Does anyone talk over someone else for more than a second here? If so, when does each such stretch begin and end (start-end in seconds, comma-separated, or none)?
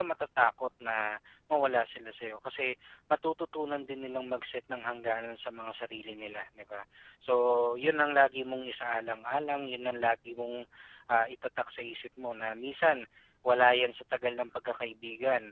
none